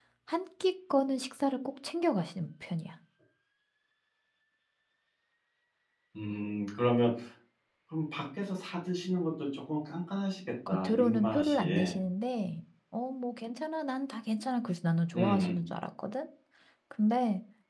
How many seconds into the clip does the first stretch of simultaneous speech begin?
11 s

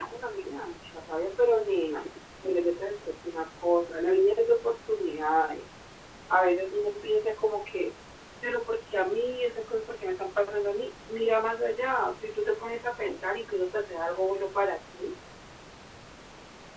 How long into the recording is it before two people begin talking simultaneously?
none

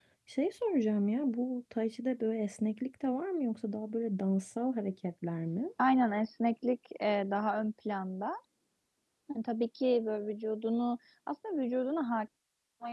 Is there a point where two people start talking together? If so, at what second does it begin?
none

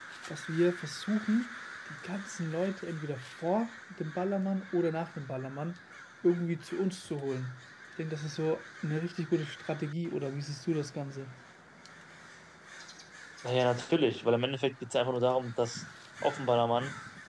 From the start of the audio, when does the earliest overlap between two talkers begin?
none

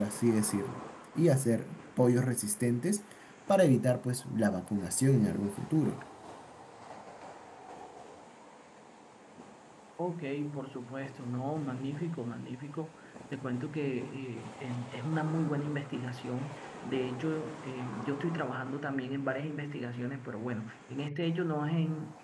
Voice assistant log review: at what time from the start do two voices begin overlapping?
none

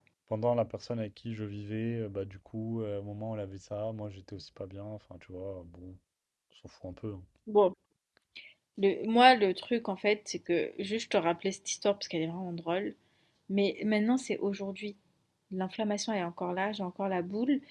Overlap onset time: none

